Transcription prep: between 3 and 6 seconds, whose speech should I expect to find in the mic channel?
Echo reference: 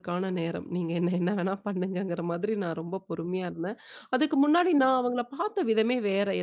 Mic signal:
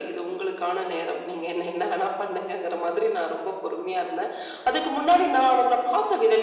echo only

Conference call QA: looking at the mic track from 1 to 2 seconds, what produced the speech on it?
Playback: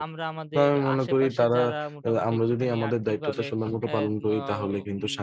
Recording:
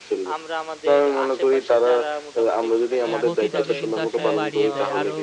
echo only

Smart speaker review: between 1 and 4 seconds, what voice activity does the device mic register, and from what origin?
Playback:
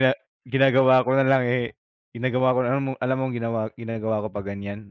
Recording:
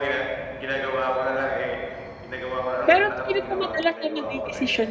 both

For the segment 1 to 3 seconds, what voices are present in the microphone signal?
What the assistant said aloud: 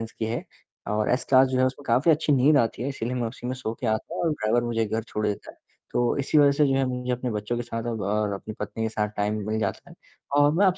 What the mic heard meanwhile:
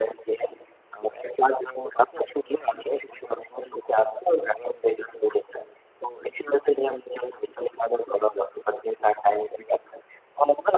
echo only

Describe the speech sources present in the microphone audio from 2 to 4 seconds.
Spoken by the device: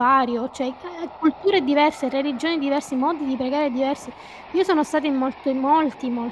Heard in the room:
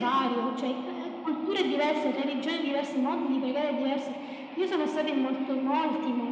echo only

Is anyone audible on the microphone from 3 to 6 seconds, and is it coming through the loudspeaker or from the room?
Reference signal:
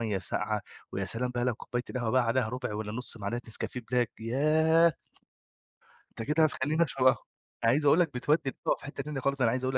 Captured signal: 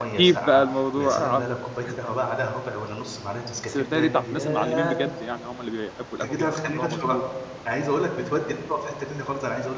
both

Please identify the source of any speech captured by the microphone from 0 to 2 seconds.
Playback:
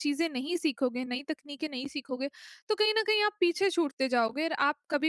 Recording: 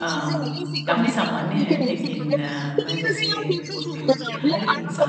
both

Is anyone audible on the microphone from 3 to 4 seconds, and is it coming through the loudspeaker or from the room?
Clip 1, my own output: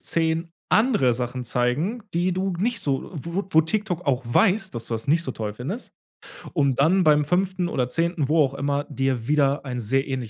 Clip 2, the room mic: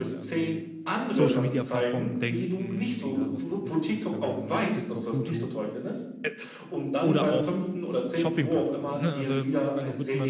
both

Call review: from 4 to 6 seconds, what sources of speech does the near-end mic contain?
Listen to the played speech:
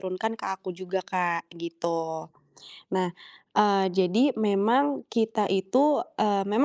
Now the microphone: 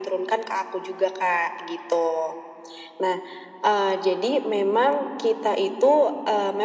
echo only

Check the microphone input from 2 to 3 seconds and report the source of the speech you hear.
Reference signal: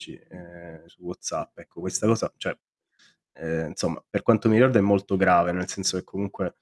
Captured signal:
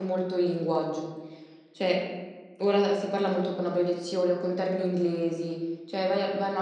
user only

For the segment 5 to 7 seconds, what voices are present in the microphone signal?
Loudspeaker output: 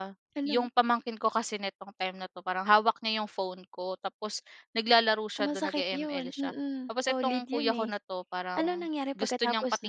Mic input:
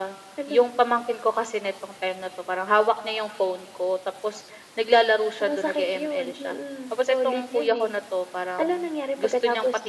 echo only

